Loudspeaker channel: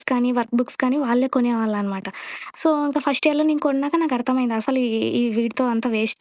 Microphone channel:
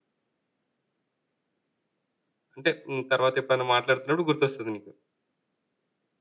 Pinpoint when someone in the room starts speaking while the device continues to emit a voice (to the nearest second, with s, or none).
3 s